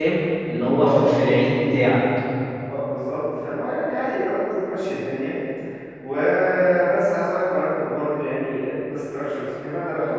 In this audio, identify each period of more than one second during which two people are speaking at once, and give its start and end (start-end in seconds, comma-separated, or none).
none